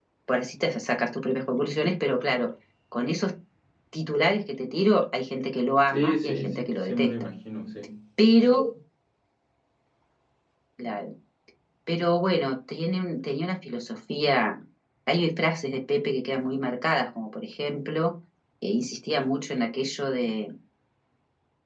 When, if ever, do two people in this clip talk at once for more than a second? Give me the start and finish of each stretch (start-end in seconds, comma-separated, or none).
5.9-7.1